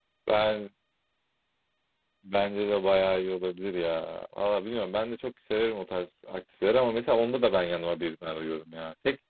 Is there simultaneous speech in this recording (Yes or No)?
No